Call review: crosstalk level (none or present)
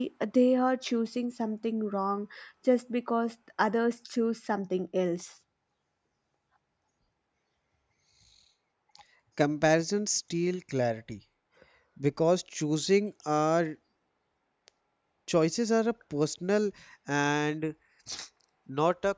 none